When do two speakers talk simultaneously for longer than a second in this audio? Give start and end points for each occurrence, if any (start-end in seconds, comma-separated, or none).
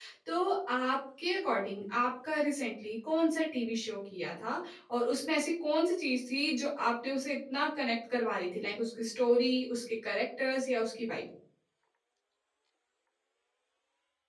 none